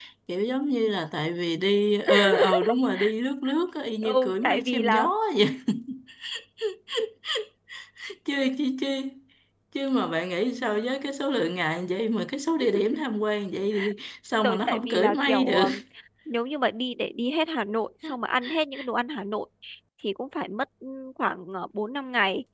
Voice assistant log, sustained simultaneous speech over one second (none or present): present